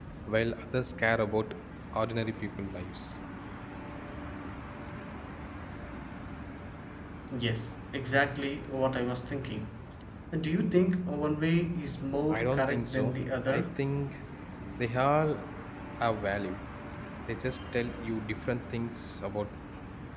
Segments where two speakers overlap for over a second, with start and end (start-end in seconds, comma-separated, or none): 12.3-13.8